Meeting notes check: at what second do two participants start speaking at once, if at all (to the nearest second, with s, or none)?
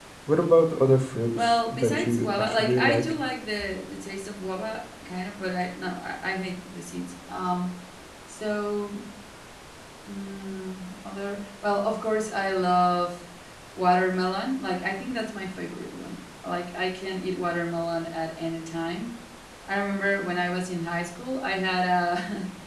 1 s